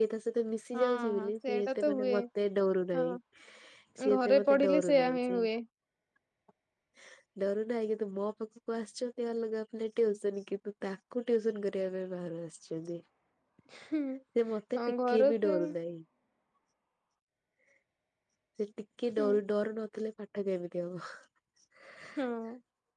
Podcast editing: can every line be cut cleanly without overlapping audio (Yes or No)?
No